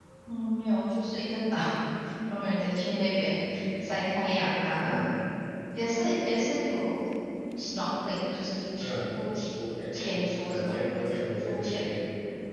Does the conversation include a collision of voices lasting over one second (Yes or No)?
Yes